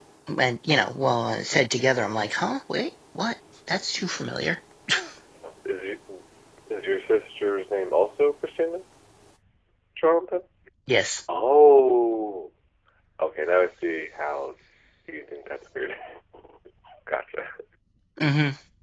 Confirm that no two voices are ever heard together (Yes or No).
Yes